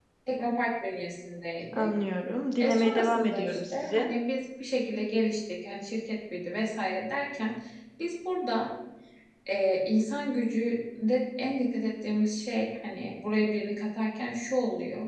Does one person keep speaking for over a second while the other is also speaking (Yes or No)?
Yes